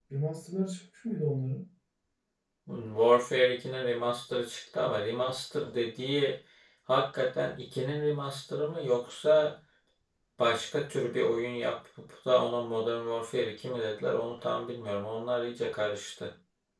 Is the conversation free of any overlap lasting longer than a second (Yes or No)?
Yes